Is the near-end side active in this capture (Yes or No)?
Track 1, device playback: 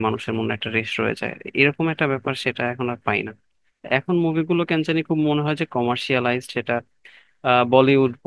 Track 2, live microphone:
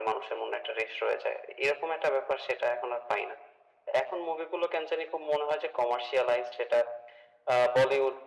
No